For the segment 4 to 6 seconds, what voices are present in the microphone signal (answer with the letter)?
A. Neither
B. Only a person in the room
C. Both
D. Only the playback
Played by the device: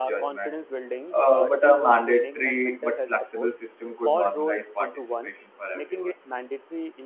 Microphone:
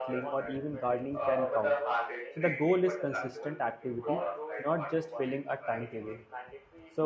C